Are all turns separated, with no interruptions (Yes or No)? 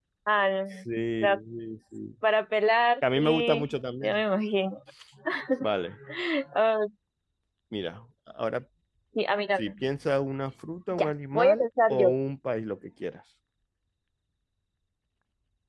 No